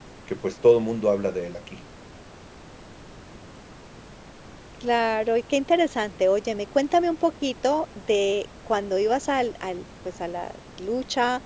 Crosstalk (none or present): none